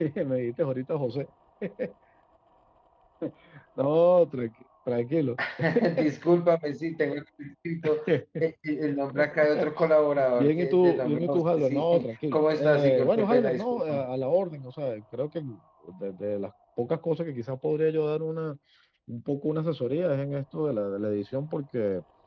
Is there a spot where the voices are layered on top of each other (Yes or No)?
Yes